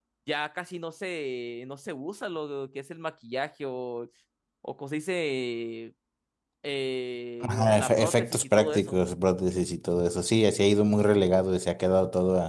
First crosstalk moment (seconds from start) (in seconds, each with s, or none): 7.4 s